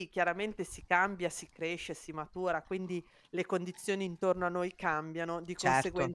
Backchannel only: Yes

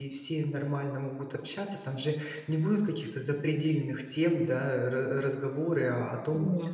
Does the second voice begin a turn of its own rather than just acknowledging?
No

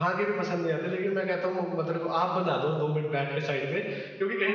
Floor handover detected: No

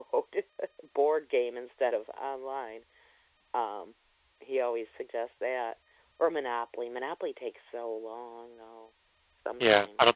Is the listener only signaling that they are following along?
No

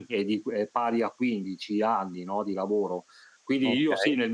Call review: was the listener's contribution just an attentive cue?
Yes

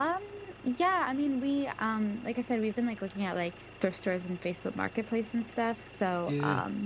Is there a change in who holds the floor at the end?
No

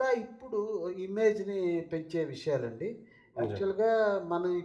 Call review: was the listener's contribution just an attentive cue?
Yes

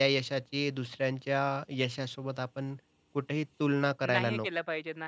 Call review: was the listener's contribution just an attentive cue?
No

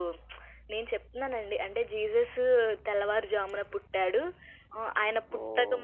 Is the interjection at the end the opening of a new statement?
No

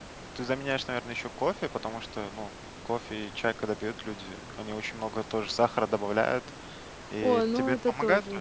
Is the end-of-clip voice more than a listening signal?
Yes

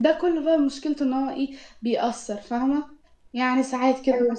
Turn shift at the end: No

